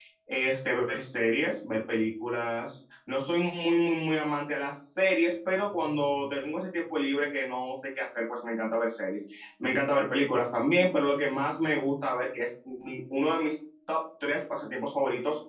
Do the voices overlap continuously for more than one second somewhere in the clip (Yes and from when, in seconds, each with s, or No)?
No